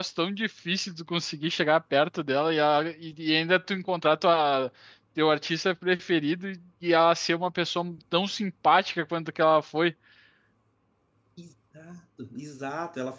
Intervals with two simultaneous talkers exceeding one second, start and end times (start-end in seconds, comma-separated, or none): none